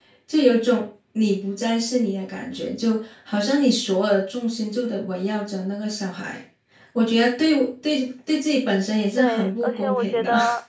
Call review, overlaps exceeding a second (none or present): present